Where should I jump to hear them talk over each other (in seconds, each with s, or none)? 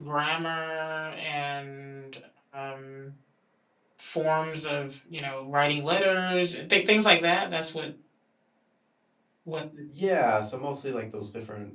none